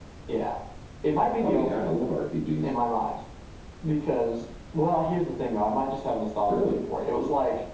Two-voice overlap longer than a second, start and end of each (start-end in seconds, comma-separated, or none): none